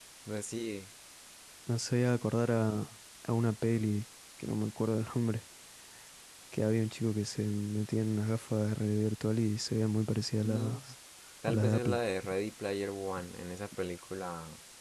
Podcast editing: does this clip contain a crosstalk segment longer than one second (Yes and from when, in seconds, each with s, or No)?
No